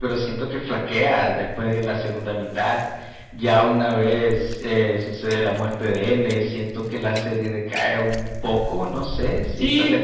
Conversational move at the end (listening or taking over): taking over